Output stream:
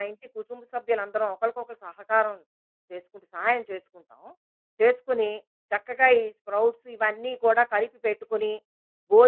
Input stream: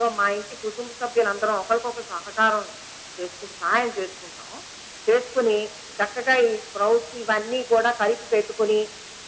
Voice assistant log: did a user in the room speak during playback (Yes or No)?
No